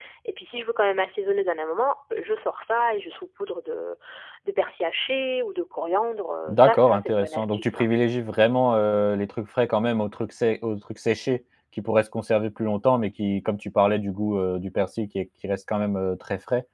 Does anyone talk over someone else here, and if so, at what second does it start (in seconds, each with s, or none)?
6.5 s